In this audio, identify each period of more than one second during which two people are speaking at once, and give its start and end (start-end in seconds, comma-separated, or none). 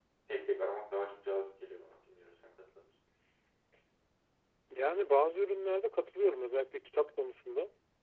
none